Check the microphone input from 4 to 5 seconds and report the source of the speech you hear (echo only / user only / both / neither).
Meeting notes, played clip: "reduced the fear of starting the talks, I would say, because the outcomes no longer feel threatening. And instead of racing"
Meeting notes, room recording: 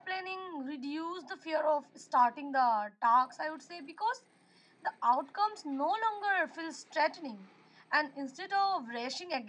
echo only